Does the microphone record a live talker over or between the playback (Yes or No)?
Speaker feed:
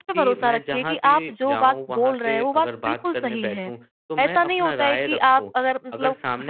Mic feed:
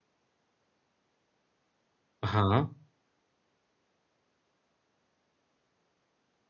Yes